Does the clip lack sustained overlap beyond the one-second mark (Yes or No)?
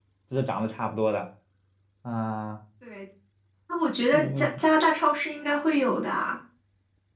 Yes